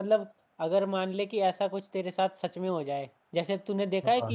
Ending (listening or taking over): listening